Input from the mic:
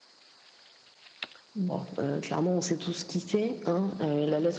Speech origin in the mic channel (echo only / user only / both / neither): echo only